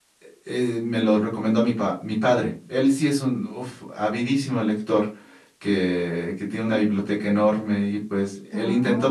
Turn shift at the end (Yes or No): No